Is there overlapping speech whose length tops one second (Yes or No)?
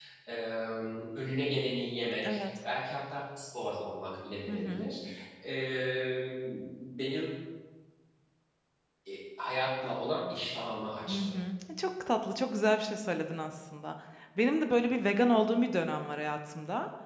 No